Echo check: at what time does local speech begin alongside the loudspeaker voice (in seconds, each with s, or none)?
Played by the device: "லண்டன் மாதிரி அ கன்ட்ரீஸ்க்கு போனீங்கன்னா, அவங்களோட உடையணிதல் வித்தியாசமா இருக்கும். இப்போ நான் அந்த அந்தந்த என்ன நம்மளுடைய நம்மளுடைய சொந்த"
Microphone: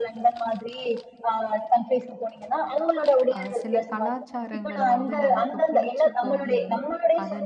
3.4 s